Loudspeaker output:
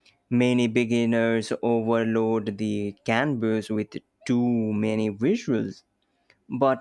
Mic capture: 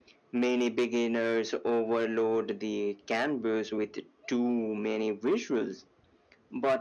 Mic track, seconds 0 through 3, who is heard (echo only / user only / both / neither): echo only